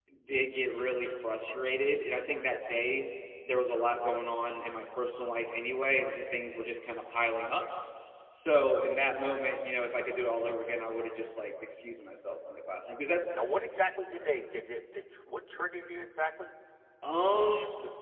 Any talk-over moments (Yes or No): No